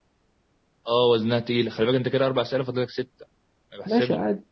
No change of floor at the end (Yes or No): No